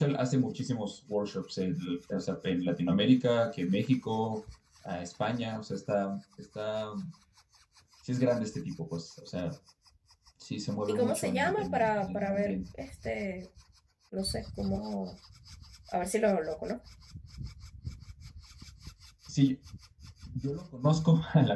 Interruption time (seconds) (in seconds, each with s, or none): 10.9 s